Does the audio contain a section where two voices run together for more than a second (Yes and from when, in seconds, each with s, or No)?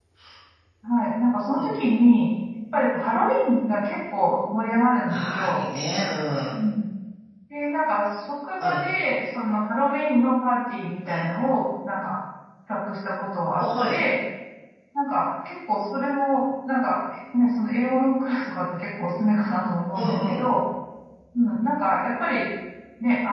No